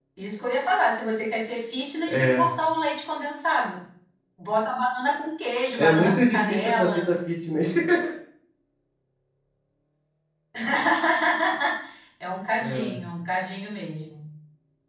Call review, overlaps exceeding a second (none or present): present